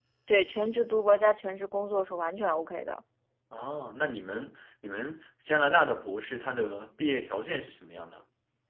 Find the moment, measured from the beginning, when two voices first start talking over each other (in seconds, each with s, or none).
none